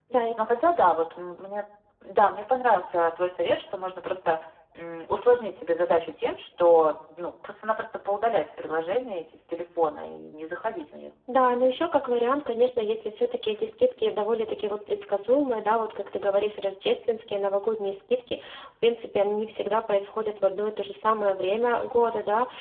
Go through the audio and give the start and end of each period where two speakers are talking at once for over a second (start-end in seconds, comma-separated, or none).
none